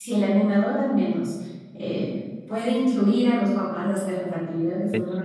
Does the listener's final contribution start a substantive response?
No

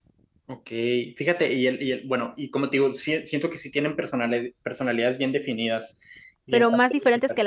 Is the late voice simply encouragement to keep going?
No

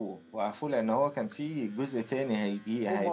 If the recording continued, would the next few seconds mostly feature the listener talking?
Yes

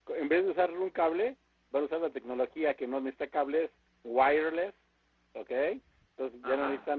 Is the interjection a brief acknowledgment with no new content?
Yes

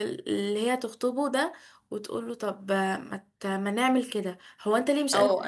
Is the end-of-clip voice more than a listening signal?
Yes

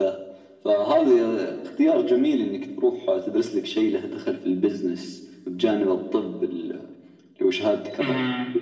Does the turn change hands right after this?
Yes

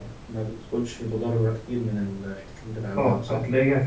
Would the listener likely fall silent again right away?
No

